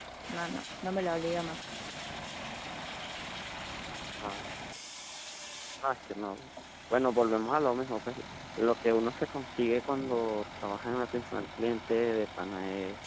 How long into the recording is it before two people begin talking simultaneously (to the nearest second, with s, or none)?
none